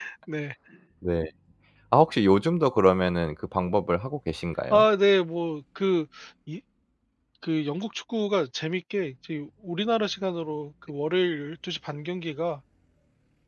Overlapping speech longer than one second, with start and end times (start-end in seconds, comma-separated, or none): none